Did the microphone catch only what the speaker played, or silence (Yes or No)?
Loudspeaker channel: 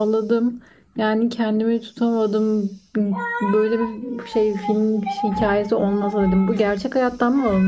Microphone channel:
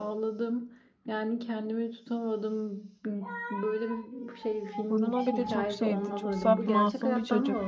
No